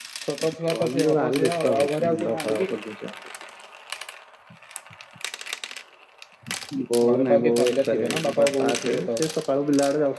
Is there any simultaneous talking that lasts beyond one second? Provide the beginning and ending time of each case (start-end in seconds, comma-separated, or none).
0.6-2.7, 7.1-9.2